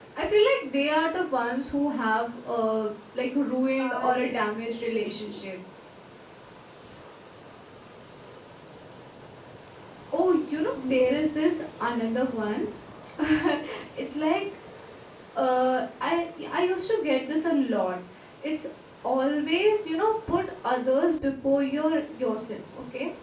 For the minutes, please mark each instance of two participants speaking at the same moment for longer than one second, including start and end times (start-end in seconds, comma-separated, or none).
3.8-5.4